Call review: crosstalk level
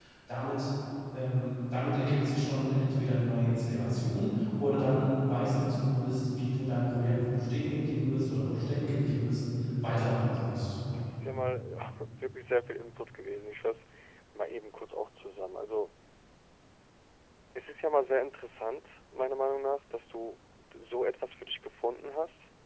none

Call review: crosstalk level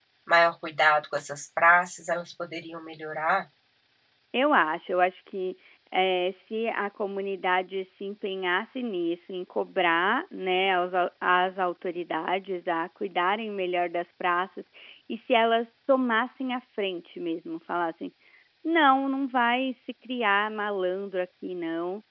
none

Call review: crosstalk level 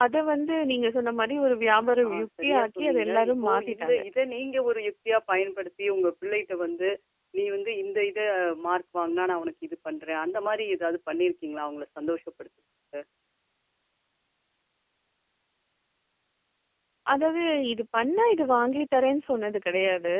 present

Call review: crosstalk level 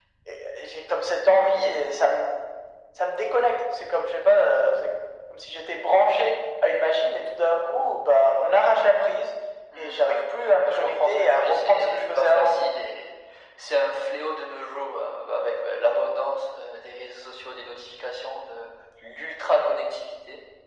present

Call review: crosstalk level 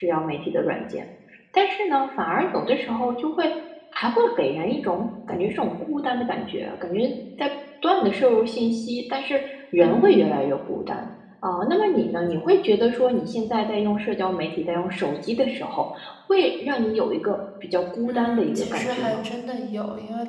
present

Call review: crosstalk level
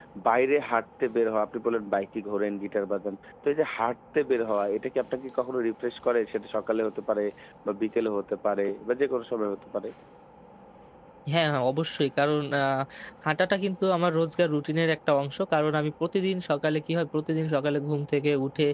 none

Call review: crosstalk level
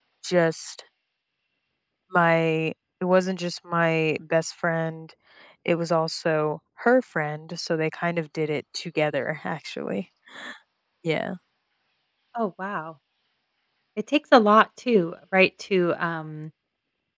none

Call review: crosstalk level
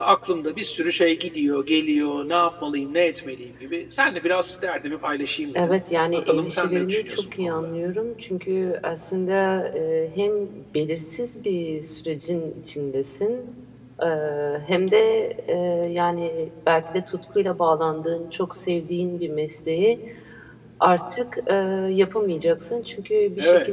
present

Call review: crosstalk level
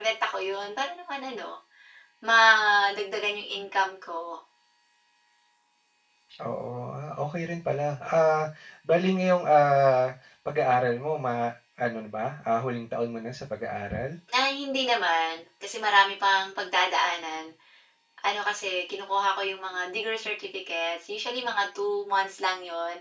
none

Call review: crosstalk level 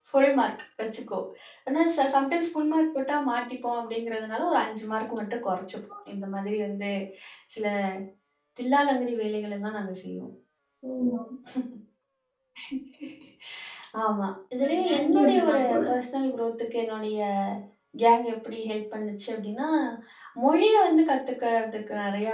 present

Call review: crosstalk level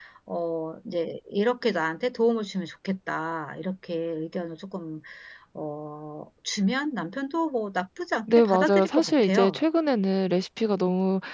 present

